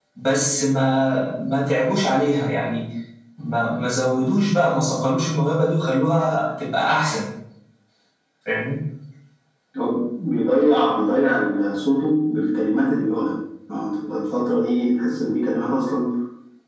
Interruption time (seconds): none

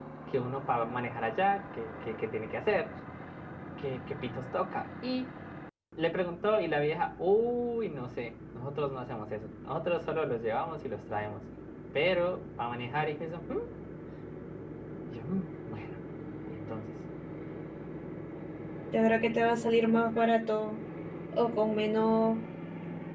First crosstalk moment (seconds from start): none

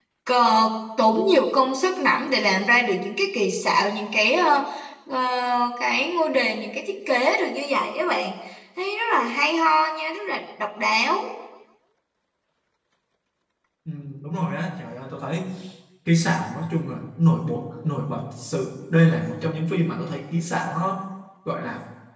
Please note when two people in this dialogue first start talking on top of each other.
none

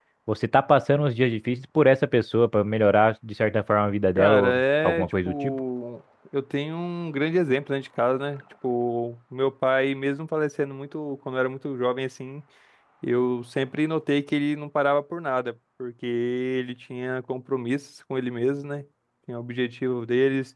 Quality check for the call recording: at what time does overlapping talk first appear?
4.2 s

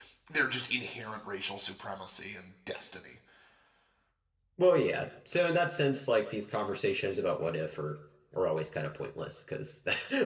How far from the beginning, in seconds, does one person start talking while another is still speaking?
none

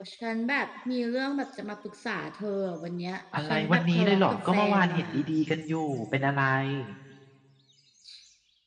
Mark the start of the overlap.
3.3 s

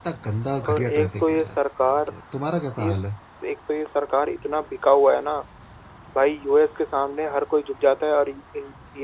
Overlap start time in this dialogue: 0.7 s

